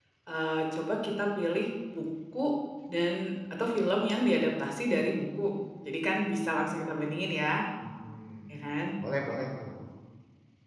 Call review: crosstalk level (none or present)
none